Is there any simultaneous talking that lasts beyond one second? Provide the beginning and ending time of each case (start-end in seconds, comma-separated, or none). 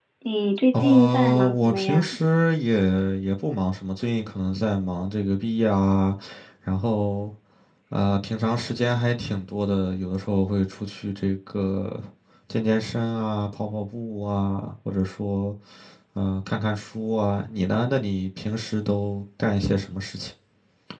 0.8-2.2